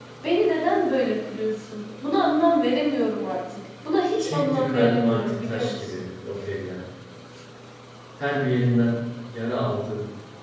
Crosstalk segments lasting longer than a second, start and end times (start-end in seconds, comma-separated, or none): 4.2-6.0